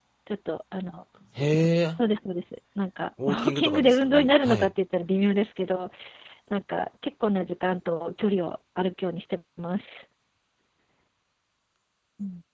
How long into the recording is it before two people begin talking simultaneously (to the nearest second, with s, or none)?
3 s